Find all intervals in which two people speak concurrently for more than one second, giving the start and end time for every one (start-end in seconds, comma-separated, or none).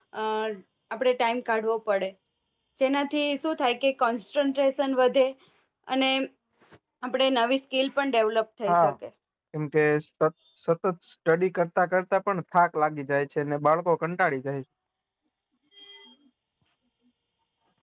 none